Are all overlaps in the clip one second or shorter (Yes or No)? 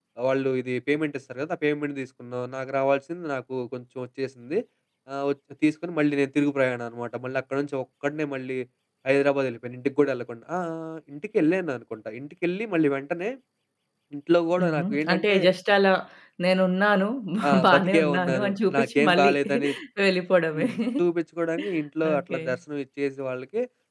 No